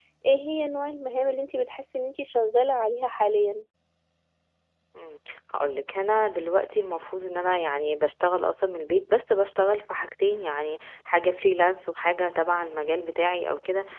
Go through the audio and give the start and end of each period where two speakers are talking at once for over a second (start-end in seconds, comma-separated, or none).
none